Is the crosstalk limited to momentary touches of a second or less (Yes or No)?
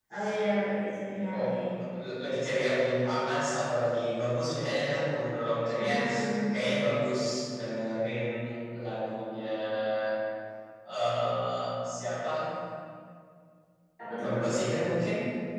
Yes